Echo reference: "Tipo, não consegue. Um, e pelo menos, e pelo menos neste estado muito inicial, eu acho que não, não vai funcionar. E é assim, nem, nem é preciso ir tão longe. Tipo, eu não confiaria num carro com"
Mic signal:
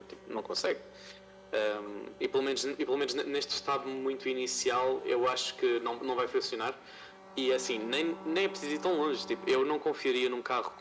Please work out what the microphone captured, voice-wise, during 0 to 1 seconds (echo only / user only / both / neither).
echo only